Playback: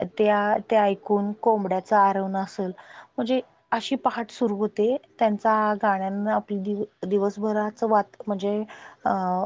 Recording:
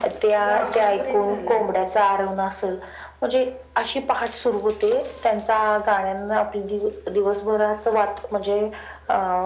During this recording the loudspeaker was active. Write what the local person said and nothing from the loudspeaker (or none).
तुझा आवाज ब्रेक झालाय